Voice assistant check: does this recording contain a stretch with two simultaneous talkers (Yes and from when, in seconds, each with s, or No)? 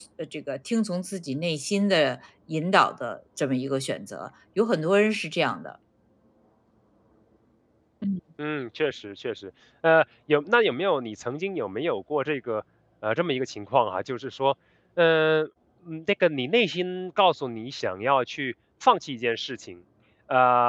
No